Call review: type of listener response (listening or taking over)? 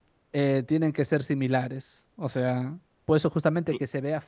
listening